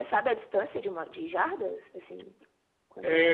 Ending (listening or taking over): taking over